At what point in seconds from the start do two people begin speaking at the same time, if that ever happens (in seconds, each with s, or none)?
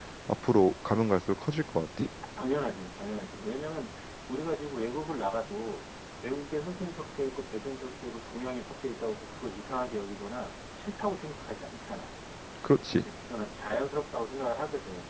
none